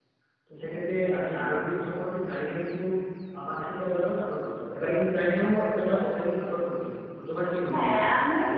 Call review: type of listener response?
taking over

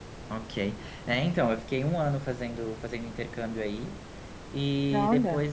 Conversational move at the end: listening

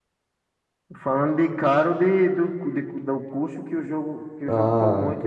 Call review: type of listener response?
taking over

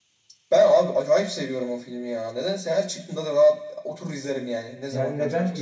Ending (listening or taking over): taking over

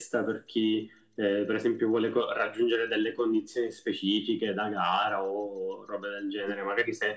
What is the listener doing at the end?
listening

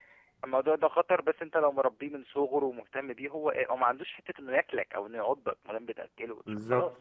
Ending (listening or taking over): listening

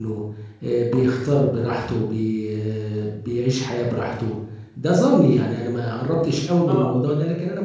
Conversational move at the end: listening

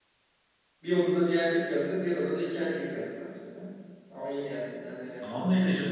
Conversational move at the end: taking over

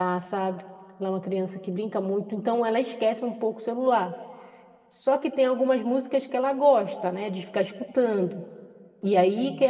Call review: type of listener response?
listening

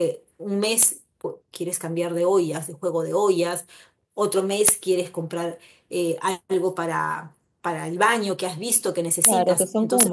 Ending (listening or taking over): taking over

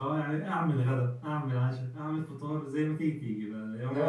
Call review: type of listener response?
taking over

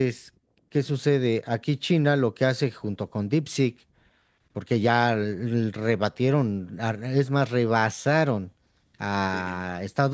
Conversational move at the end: listening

